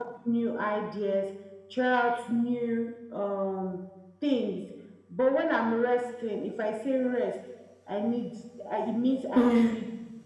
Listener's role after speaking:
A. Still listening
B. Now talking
A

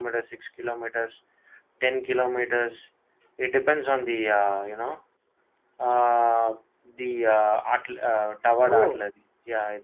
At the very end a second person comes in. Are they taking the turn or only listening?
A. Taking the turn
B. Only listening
B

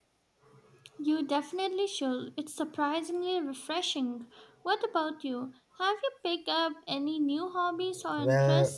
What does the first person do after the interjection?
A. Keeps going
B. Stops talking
B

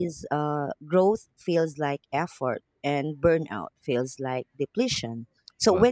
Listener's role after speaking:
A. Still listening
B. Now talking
A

